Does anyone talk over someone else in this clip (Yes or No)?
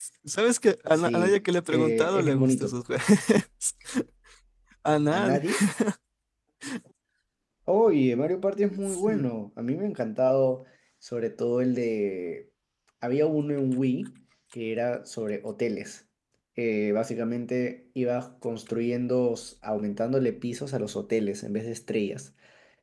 Yes